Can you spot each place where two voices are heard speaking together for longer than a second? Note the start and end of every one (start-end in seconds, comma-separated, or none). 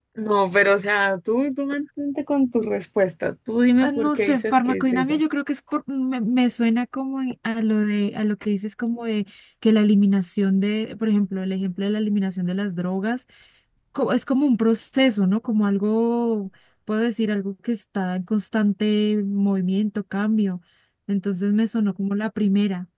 3.8-5.2